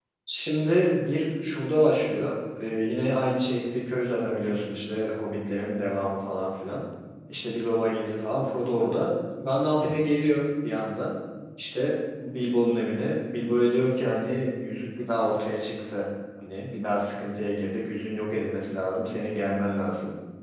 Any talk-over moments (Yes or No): No